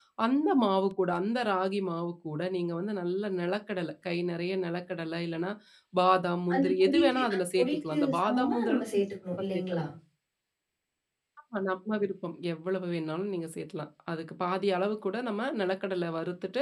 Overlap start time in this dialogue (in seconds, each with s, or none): 6.5 s